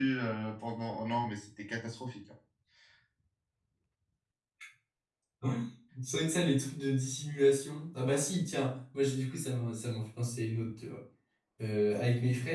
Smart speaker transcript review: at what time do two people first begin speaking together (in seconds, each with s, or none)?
none